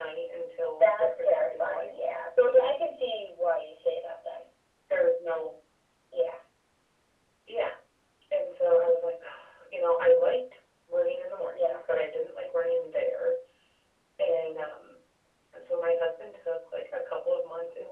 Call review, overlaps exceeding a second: present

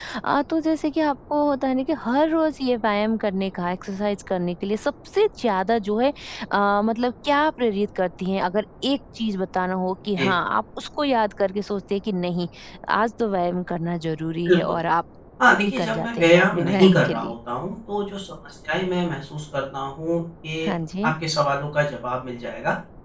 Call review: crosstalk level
present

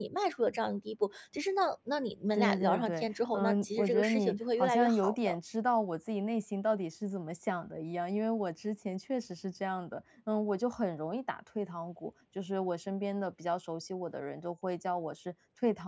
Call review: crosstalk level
present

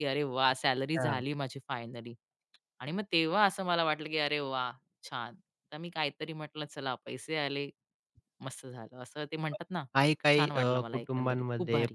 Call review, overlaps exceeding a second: present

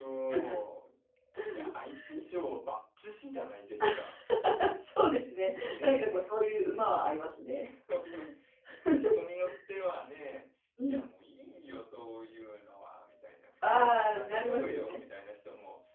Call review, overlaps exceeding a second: present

